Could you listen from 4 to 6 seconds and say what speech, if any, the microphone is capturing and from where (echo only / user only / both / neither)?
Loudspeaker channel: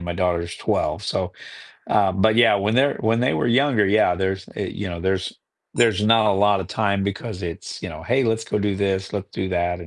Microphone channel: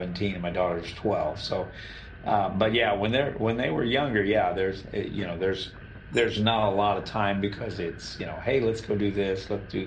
echo only